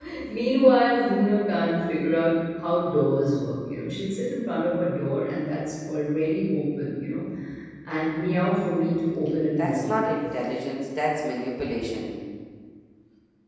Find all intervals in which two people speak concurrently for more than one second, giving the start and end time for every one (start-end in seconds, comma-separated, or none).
none